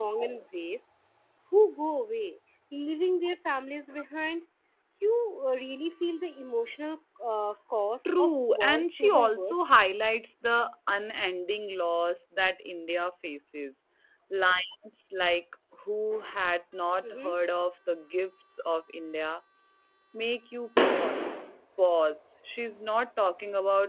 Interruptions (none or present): present